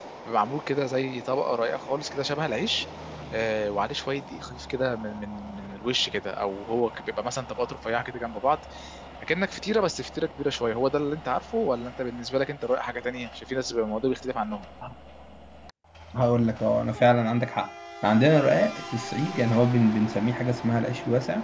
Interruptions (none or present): none